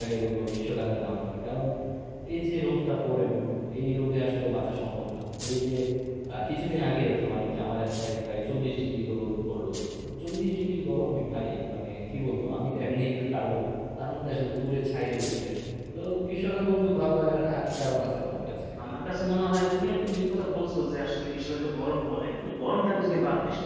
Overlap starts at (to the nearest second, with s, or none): none